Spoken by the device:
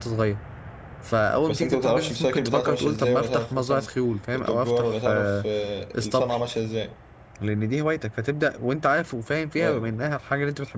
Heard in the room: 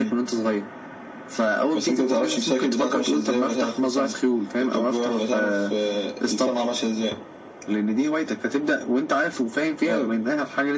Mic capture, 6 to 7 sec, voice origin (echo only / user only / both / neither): echo only